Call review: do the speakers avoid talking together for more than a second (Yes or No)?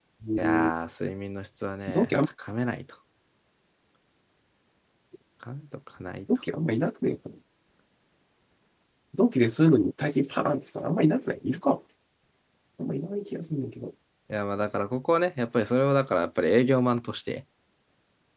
Yes